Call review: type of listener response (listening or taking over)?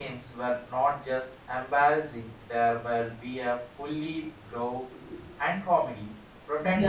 taking over